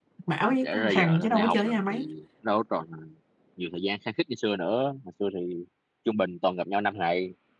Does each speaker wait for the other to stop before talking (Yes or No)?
No